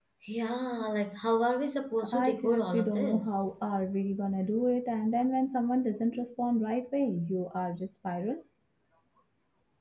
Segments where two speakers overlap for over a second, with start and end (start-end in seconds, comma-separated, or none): 2.1-3.3